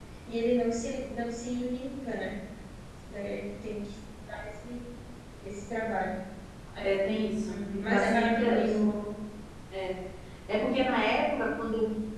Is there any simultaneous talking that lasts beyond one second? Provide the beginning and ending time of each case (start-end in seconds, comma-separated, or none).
7.5-8.8